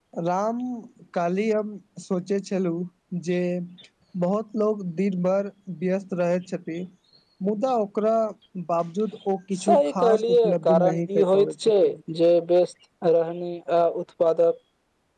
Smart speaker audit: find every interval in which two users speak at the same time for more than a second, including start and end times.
9.6-11.7

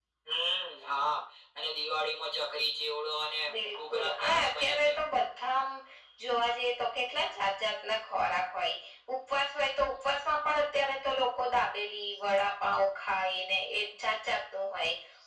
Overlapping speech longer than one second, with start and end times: 3.5-4.9

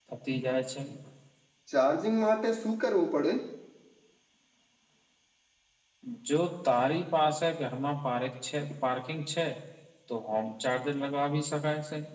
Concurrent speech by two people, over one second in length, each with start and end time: none

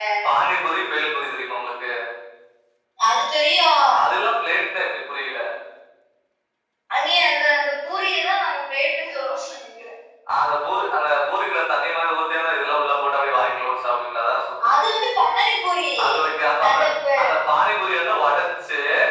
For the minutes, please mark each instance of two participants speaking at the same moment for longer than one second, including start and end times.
none

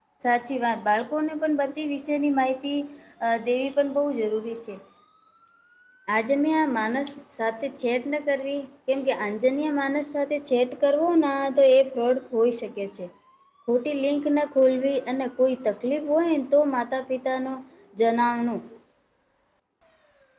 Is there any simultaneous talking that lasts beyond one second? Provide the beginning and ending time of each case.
none

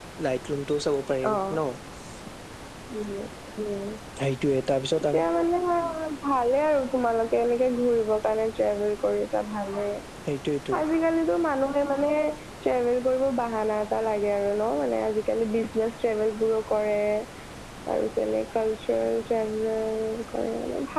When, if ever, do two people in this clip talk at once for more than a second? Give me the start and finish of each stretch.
none

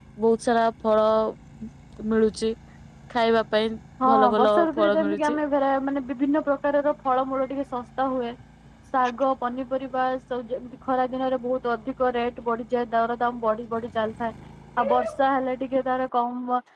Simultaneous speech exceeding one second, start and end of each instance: 4.1-5.4

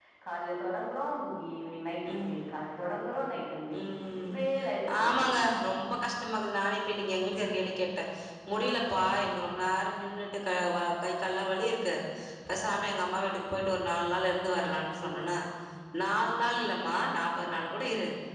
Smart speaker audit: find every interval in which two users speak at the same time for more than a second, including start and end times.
none

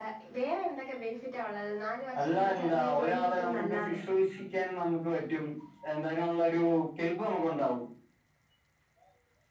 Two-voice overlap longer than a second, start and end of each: 2.2-4.0

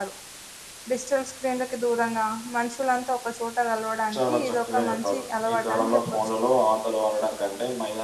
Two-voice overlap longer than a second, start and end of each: 4.2-6.3

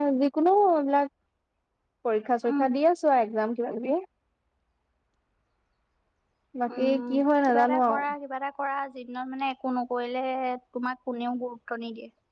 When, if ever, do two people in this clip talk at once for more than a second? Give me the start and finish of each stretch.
6.8-8.0

